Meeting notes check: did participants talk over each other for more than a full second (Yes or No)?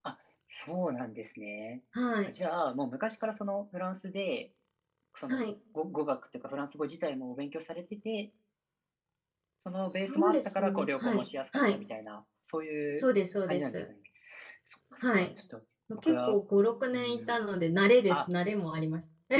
Yes